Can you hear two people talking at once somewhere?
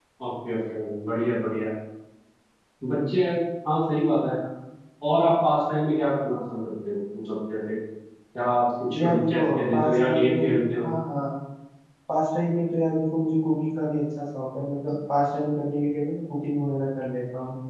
Yes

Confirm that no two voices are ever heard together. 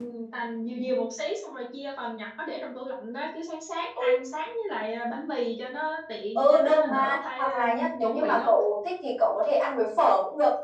No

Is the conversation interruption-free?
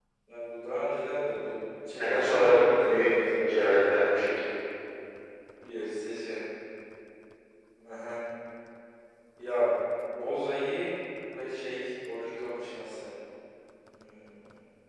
No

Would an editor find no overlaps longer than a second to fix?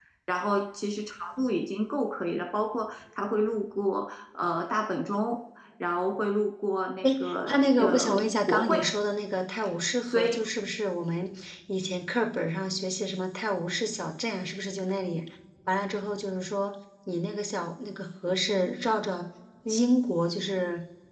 No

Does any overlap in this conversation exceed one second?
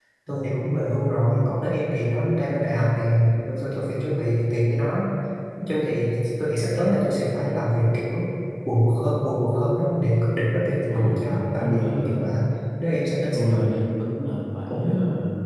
Yes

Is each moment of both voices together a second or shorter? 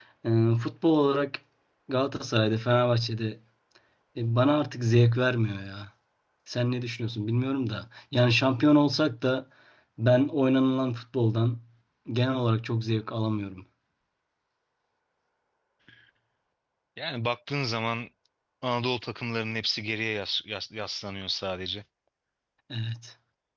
Yes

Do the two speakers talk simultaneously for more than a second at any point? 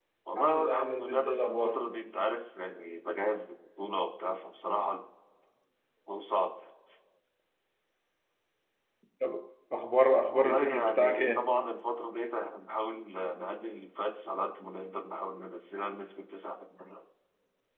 Yes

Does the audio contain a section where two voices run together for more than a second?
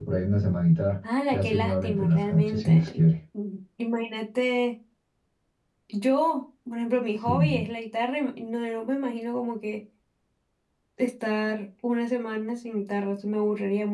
Yes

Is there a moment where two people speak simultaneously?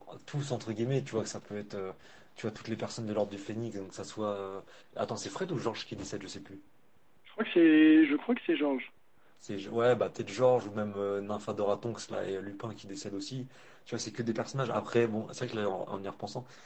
No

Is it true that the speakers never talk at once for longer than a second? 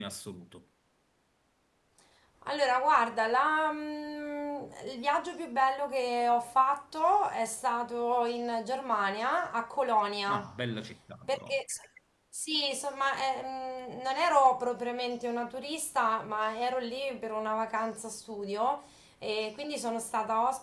Yes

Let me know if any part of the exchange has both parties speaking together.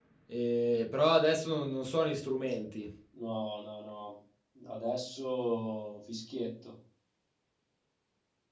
No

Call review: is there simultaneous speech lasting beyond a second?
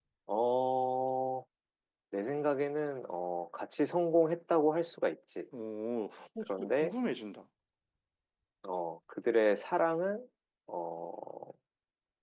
No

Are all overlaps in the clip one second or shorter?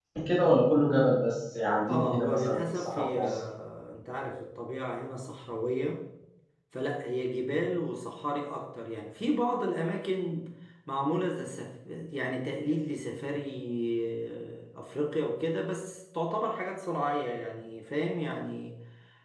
No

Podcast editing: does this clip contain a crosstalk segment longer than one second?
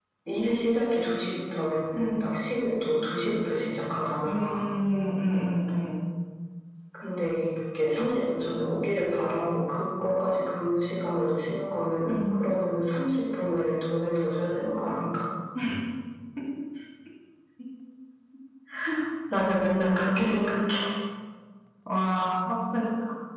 No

